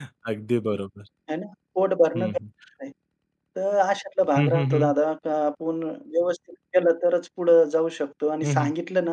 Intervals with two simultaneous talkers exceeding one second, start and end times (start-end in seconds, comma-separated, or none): none